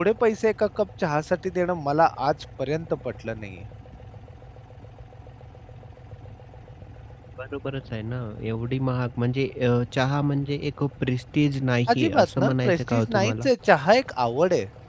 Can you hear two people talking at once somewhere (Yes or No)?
Yes